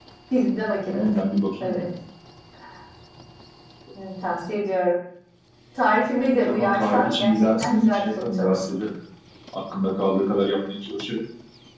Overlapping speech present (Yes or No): Yes